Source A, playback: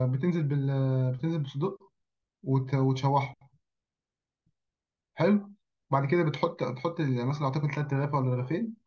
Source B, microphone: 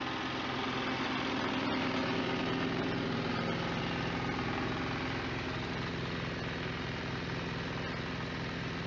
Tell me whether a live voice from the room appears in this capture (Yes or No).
No